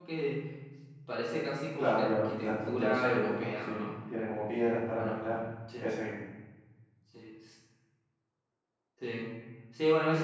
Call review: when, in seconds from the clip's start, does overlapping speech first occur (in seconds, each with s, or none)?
1.8 s